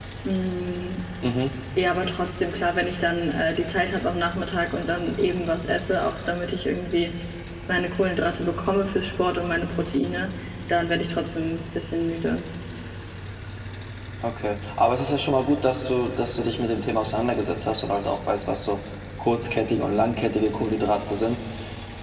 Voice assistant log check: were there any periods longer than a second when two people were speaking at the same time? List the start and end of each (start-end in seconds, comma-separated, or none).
none